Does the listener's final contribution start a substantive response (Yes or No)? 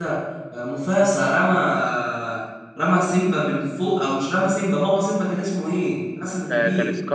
Yes